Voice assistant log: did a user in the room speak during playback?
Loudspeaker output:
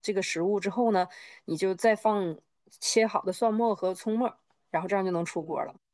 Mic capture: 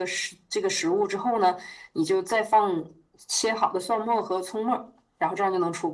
No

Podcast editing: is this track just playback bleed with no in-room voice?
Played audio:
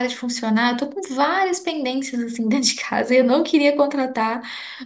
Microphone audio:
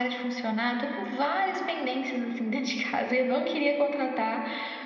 Yes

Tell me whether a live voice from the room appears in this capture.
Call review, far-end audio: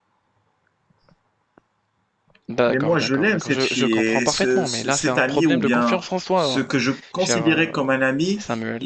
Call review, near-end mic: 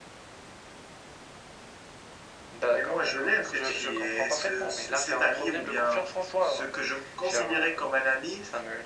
No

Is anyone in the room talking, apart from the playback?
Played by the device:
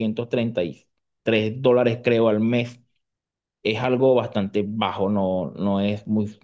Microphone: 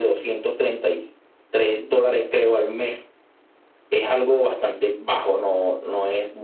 No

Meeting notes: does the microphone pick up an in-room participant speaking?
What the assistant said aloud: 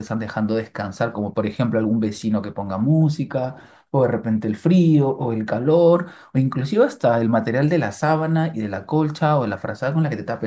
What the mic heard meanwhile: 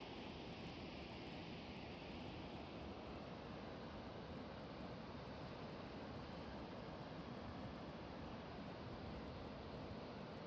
No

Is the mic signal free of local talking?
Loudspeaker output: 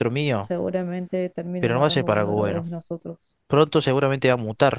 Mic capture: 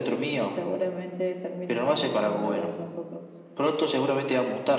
Yes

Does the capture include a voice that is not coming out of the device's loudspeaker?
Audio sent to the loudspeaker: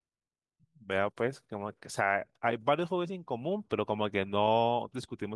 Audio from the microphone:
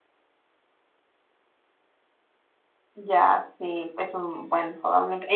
Yes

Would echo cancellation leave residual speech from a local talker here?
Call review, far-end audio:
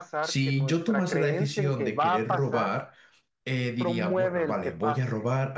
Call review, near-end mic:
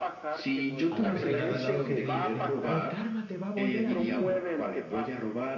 Yes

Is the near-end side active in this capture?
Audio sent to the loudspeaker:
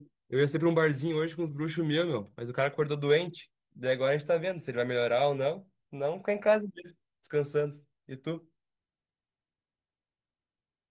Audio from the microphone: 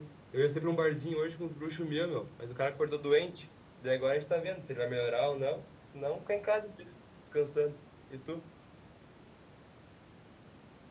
No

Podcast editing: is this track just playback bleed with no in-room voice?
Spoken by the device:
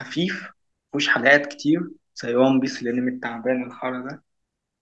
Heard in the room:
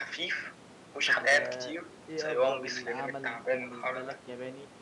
No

